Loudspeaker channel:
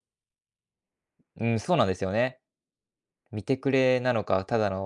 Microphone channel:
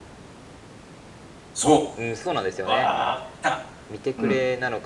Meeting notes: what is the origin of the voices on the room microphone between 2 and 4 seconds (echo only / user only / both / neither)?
both